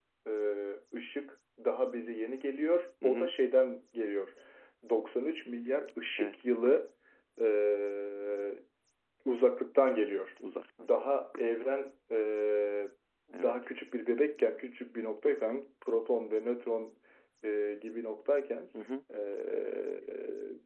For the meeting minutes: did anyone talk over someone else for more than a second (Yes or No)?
No